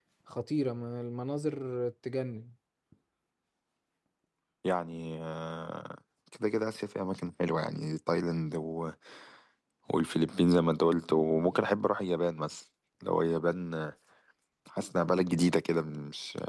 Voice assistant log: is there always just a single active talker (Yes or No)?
Yes